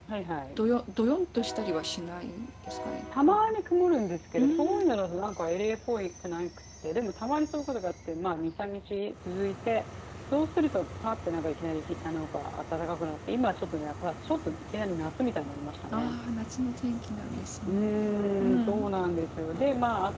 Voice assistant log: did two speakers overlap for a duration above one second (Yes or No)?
No